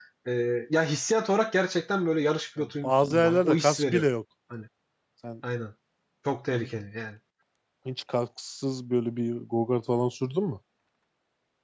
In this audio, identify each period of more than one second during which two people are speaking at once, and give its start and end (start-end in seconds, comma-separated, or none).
2.8-4.0